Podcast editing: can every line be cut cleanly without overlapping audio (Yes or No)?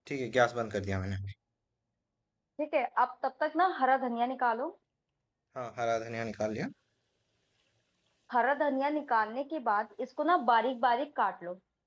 Yes